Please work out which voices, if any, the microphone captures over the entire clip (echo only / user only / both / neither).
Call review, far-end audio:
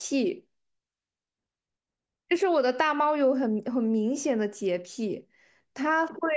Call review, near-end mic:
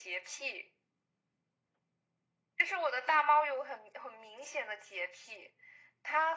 echo only